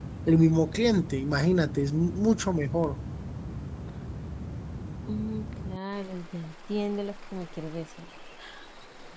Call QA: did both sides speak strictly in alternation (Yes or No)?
Yes